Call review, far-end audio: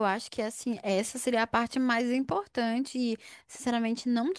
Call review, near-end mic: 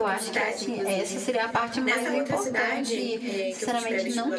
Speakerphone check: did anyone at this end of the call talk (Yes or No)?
Yes